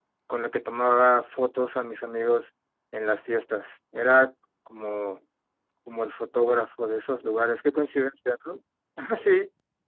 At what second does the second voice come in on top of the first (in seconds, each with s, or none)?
none